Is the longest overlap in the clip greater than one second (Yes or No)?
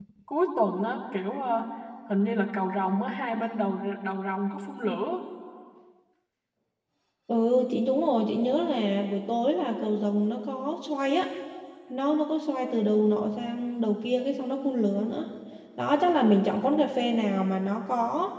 No